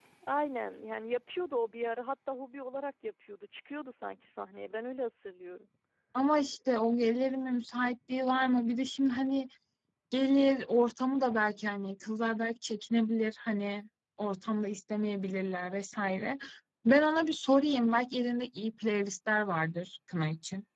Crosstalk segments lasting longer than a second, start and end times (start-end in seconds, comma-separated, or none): none